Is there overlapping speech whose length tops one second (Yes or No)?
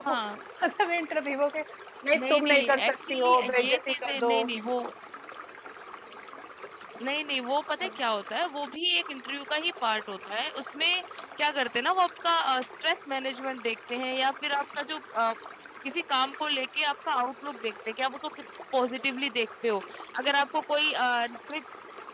Yes